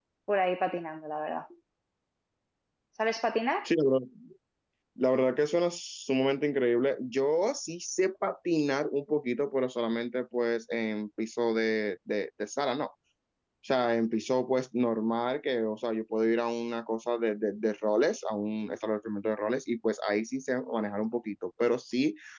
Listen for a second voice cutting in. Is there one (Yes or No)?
No